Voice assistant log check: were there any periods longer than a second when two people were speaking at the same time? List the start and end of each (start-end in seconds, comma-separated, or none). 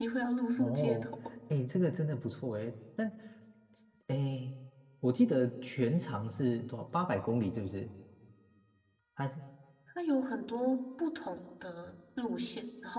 none